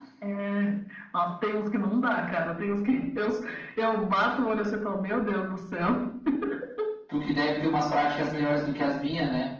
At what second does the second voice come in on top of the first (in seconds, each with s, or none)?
none